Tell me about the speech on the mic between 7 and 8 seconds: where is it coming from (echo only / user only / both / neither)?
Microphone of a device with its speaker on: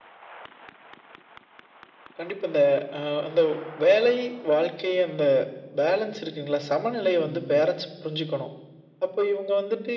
both